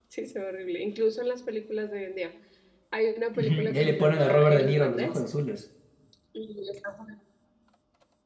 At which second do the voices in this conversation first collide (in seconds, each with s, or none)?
3.4 s